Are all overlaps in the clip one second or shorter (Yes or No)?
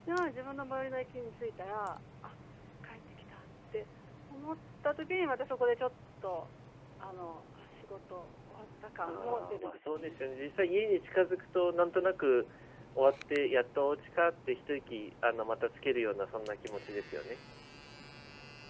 No